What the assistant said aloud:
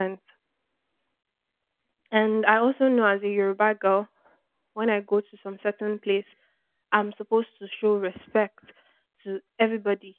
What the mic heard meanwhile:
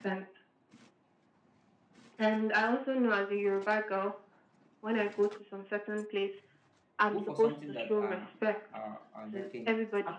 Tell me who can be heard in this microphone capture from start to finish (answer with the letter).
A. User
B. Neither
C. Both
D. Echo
C